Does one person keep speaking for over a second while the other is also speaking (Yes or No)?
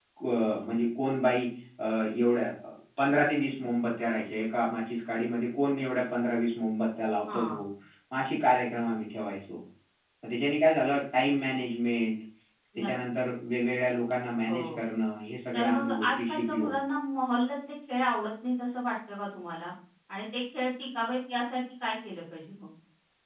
Yes